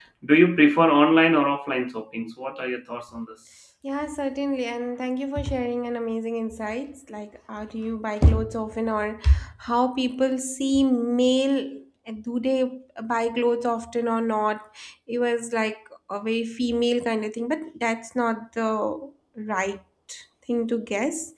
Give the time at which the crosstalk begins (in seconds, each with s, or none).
none